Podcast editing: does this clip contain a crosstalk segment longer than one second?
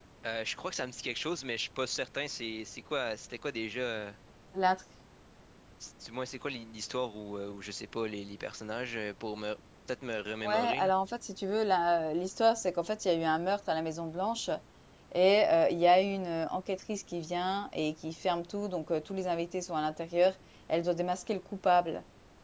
No

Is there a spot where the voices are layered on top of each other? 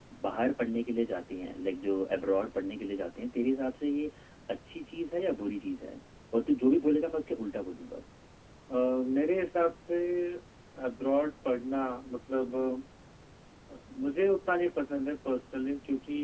No

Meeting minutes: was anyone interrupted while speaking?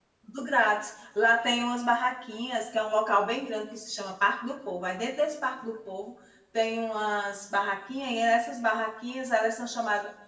No

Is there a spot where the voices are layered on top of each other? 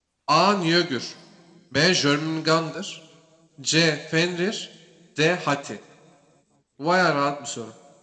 No

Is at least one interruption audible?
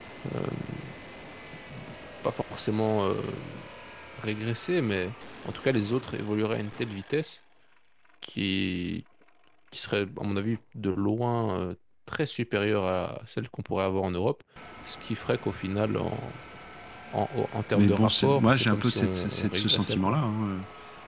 Yes, from 17.7 s

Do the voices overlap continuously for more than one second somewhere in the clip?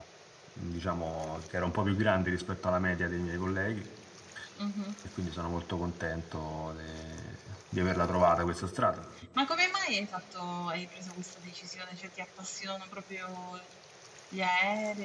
No

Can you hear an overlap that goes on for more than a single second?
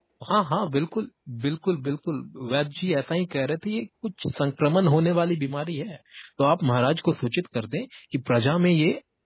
No

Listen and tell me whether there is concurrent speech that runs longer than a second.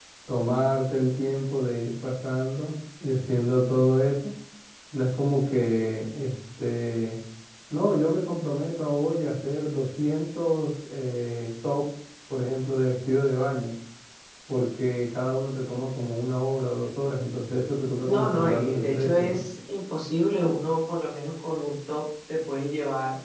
Yes, from 18.1 s

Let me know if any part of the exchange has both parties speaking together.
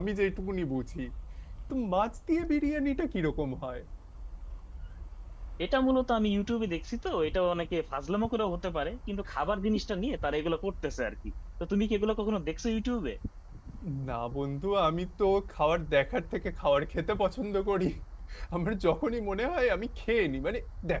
No

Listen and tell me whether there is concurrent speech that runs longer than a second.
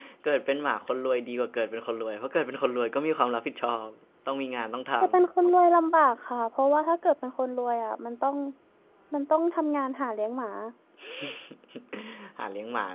No

